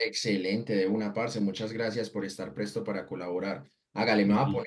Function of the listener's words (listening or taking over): listening